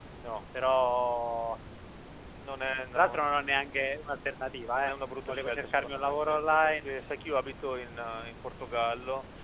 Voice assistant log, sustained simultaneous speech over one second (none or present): present